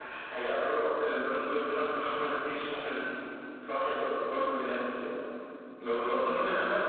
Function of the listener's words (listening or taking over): listening